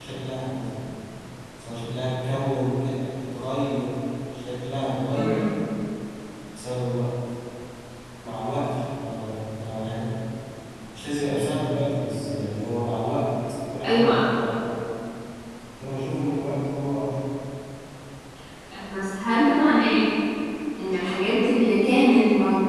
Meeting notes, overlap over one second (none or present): none